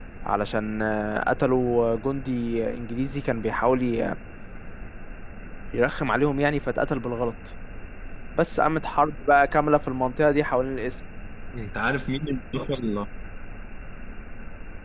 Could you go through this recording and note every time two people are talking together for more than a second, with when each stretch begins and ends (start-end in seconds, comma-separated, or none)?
none